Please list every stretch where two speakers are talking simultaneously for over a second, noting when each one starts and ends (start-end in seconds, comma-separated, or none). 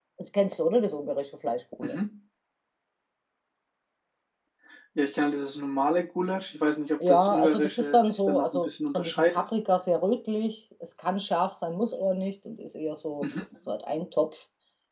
7.1-9.5